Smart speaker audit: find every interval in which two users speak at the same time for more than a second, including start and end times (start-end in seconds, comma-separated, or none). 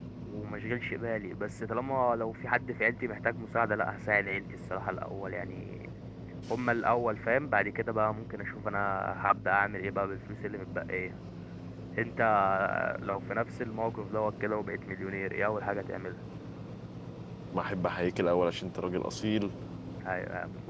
none